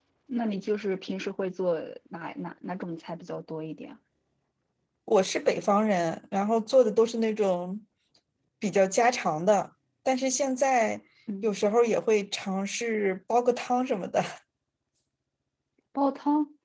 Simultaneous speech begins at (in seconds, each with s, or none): none